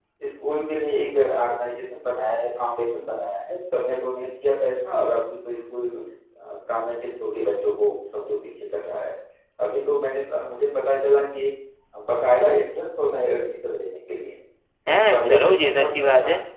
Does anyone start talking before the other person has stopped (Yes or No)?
Yes